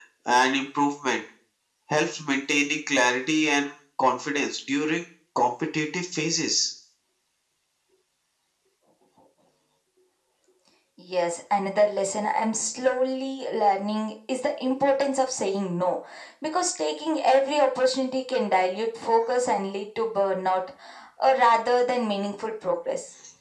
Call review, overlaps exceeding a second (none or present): none